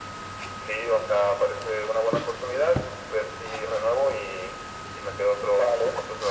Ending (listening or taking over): taking over